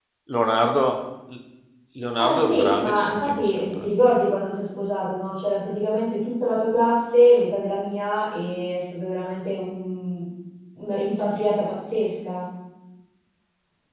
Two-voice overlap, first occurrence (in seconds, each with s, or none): 2.2 s